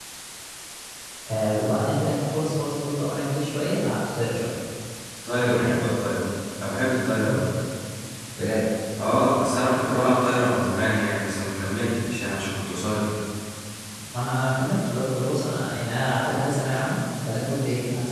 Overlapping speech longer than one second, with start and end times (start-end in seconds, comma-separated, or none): none